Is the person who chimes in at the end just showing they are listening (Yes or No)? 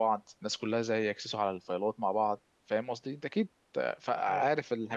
No